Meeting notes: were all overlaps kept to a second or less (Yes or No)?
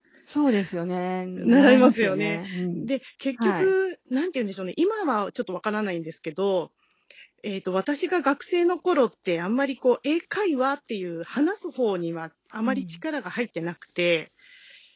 No